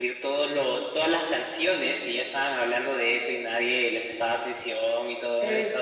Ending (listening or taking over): taking over